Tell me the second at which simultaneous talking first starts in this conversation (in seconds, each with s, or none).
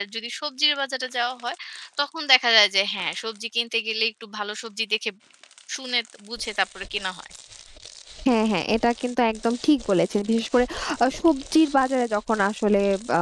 none